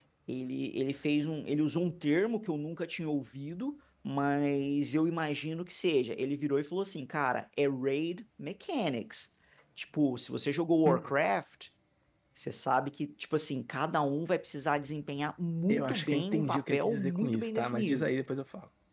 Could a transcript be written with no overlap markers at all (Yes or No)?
No